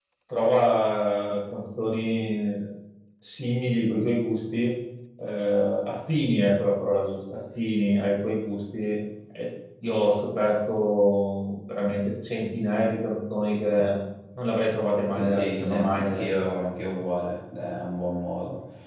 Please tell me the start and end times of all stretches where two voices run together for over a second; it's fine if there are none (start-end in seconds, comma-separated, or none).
15.1-16.6